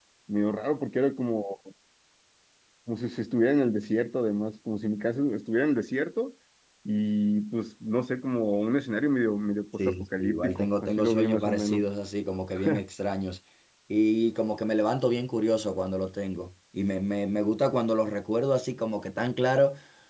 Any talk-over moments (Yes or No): Yes